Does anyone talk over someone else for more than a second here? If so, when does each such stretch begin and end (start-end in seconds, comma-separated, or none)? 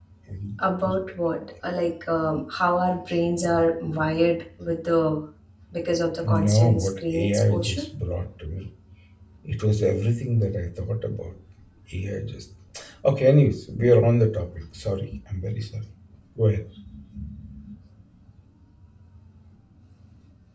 6.2-7.8